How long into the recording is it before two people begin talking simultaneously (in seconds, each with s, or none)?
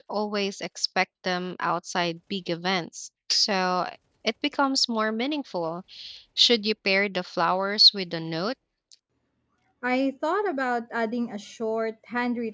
none